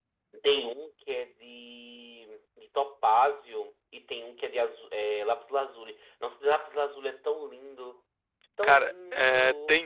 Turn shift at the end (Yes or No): Yes